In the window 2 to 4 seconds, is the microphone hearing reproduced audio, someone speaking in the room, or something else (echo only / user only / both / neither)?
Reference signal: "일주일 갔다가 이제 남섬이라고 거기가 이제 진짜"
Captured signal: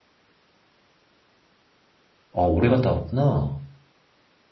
user only